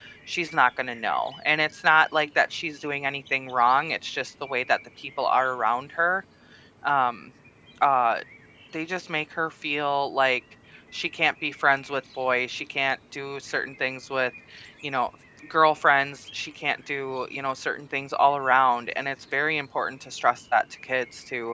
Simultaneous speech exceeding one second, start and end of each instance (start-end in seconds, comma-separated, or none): none